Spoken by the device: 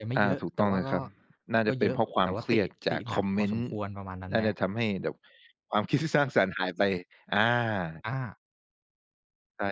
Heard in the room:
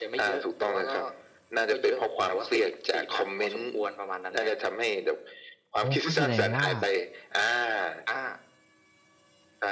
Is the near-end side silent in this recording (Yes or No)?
No